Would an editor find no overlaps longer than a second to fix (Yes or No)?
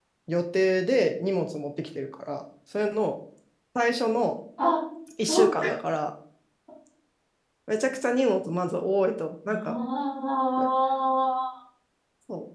Yes